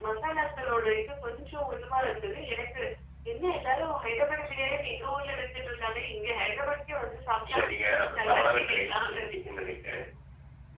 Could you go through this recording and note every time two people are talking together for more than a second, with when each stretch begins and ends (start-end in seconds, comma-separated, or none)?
7.5-9.3